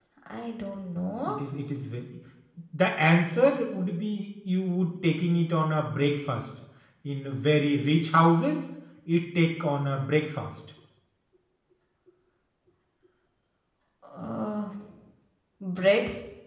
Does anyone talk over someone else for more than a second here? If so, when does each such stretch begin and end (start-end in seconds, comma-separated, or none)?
none